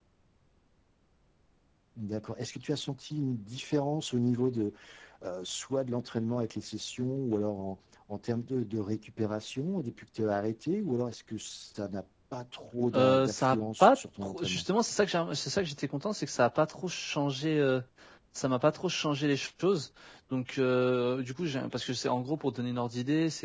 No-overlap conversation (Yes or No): No